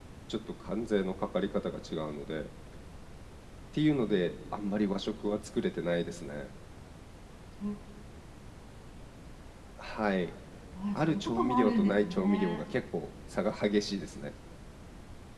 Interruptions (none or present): present